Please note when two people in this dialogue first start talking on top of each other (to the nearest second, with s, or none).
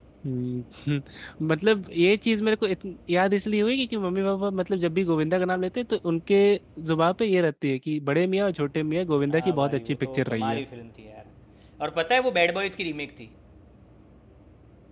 9 s